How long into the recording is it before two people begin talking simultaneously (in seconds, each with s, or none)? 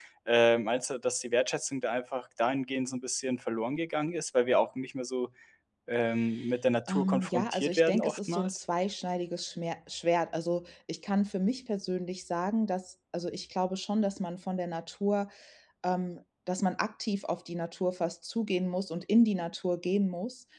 6.9 s